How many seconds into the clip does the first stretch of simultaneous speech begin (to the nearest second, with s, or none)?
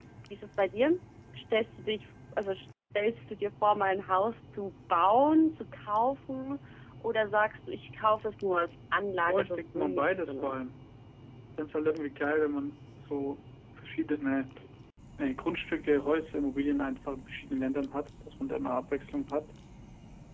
9 s